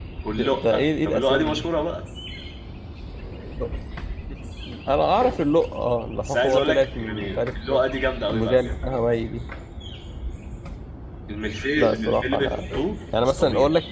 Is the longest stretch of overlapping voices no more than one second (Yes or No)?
No